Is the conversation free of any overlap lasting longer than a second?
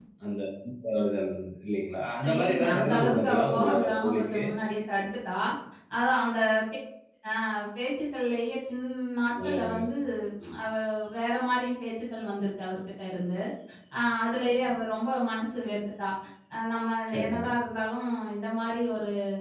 No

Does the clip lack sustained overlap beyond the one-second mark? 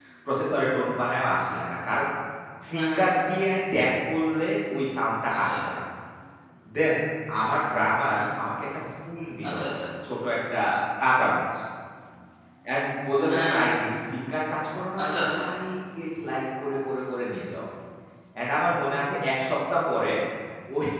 Yes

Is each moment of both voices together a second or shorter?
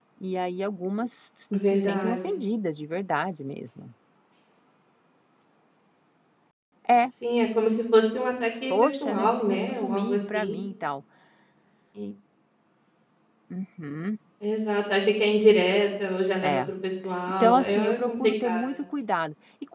No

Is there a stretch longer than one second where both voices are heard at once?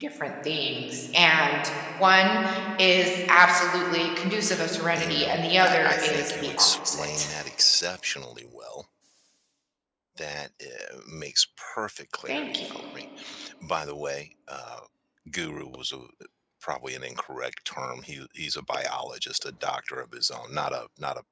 Yes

